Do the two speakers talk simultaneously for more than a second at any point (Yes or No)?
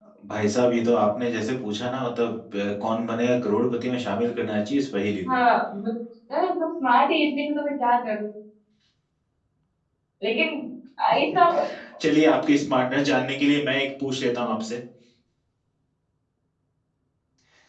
No